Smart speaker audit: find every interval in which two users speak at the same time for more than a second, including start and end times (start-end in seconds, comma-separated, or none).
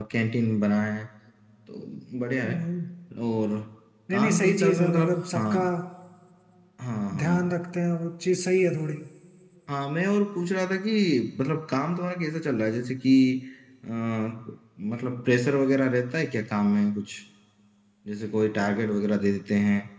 4.1-5.6